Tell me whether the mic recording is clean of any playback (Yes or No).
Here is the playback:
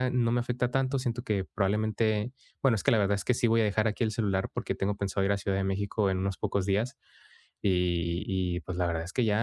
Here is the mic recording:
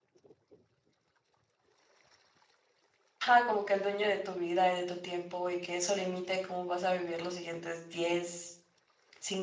Yes